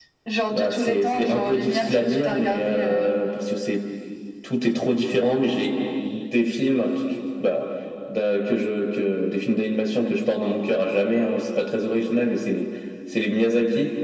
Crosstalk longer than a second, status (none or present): present